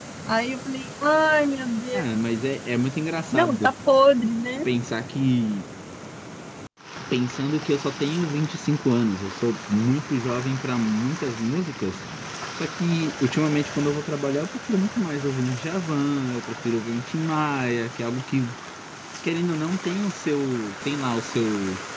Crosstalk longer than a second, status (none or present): none